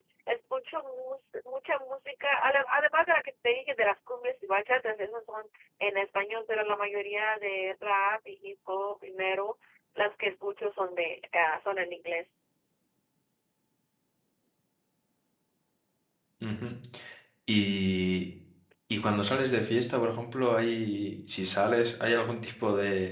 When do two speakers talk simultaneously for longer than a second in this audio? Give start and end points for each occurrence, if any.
none

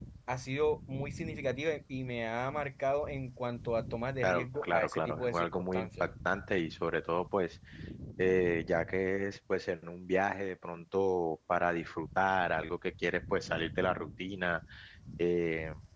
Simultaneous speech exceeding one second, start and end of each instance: 4.2-5.9

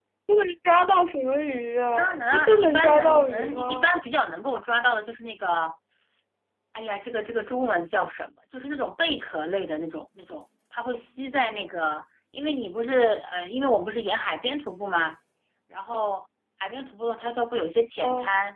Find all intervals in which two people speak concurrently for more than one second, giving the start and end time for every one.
1.9-3.9

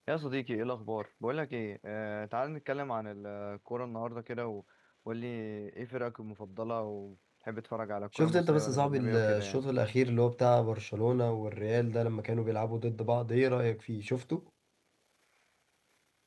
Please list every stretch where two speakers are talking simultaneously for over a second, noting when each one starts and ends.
8.2-9.6

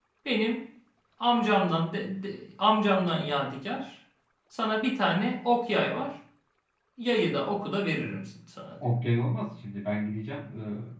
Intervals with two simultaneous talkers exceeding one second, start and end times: none

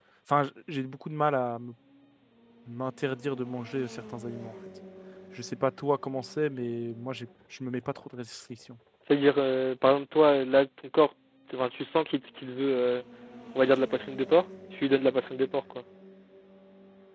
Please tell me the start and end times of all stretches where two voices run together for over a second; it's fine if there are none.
none

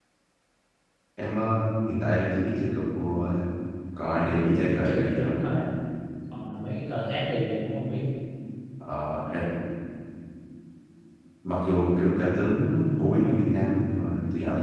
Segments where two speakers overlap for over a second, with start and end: 4.2-5.4

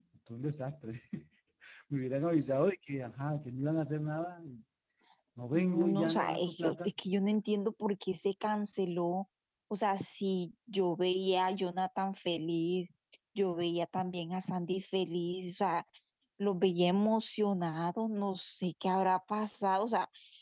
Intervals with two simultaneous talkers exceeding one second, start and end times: 5.5-6.8

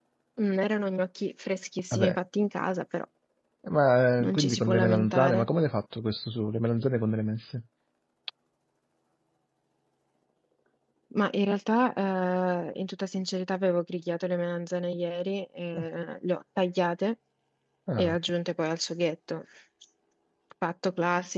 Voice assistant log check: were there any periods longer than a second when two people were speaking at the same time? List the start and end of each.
4.2-5.5

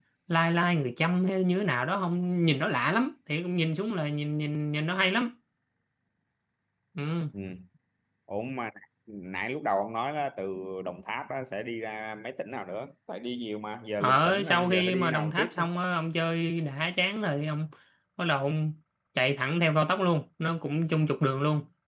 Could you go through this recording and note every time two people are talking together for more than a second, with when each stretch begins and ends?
14.0-15.6

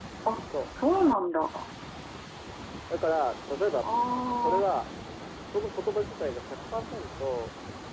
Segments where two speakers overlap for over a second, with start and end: none

